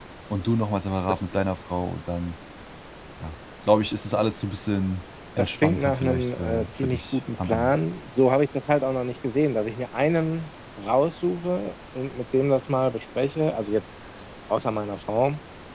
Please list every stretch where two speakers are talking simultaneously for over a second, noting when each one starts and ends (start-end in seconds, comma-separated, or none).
5.4-7.8